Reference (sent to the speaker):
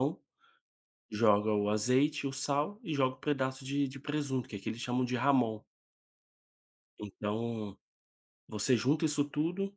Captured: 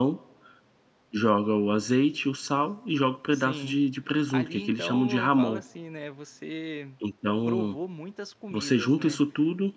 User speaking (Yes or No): Yes